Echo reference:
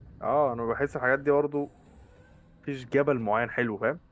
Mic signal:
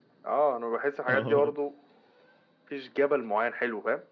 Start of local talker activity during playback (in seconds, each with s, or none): 1.1 s